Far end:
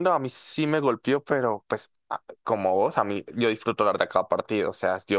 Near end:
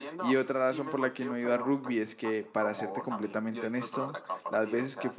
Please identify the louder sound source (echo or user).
user